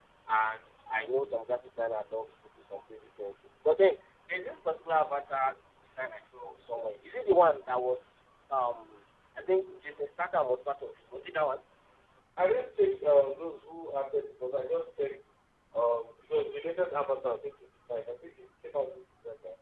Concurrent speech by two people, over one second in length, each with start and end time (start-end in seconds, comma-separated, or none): none